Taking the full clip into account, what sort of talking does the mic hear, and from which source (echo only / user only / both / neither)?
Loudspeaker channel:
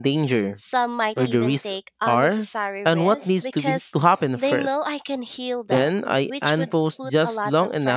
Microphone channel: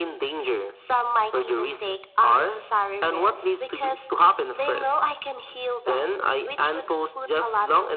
echo only